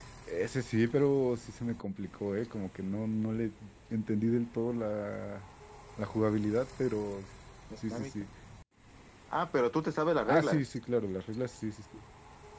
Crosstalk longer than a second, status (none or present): none